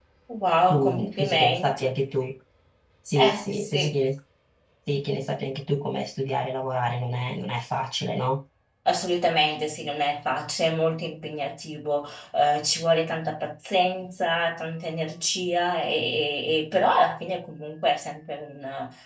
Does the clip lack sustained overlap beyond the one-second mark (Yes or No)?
No